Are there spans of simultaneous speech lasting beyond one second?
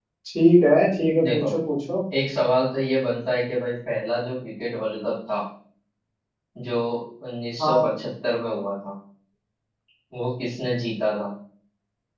No

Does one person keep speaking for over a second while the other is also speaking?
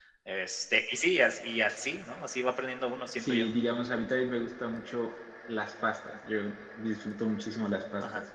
No

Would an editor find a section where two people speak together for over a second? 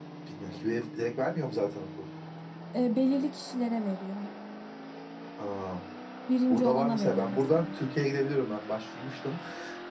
Yes, from 6.5 s

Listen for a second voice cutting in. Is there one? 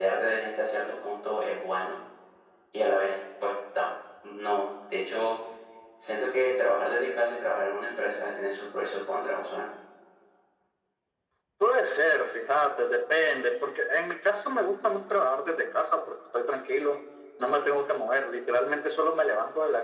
No

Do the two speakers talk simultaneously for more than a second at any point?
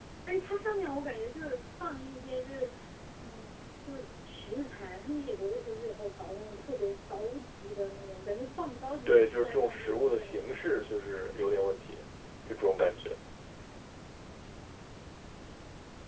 Yes, from 9.1 s

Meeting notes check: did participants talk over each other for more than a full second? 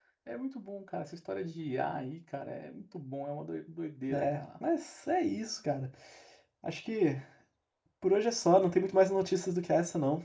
No

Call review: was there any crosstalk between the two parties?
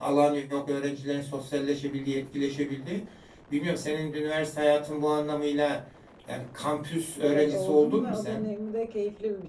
Yes, from 7.2 s

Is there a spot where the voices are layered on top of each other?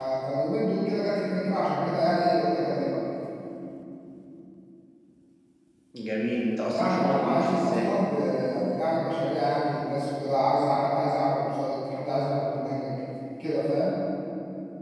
Yes, from 6.7 s

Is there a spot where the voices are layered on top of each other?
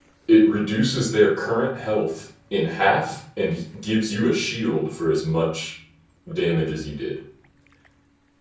No

